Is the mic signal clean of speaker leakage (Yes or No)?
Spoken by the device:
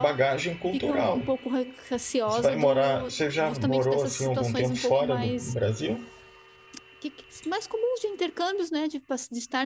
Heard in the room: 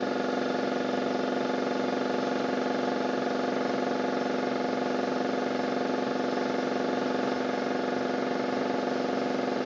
Yes